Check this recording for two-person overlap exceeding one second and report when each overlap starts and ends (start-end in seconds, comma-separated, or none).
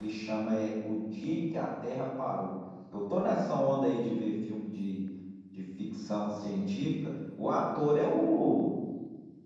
none